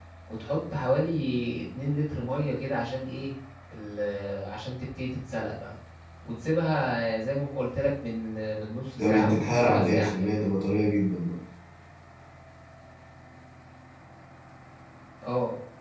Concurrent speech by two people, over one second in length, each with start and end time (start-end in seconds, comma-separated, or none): 9.0-10.3